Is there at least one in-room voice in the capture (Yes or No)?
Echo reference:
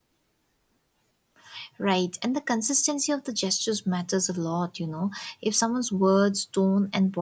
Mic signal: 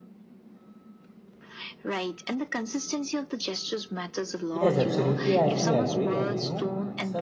Yes